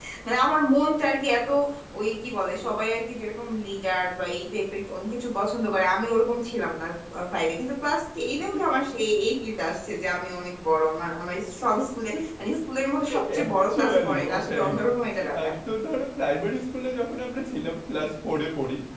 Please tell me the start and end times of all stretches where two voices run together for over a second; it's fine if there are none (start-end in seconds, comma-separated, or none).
13.3-14.7